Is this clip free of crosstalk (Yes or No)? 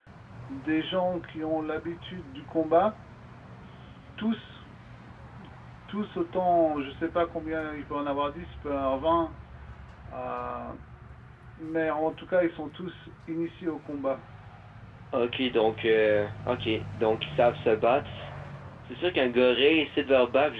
Yes